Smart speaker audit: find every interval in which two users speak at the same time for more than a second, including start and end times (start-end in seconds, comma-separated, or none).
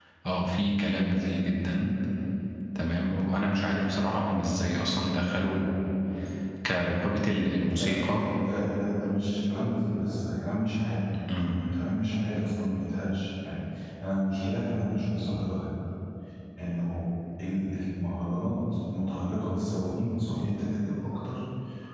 none